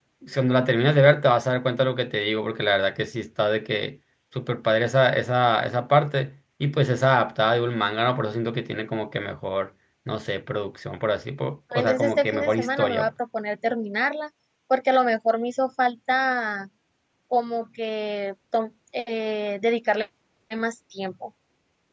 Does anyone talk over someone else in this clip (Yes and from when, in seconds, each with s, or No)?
Yes, from 11.7 s